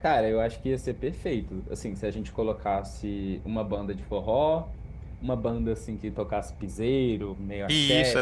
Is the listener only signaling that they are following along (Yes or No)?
No